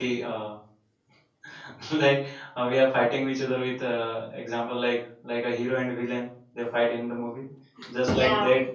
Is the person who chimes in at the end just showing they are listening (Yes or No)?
Yes